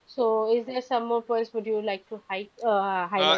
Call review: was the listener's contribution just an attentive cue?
No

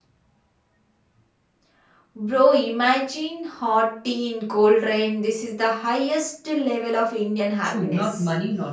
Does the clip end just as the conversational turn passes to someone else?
Yes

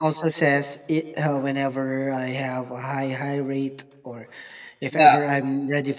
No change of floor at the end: Yes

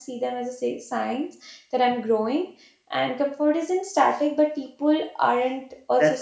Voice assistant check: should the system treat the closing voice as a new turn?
Yes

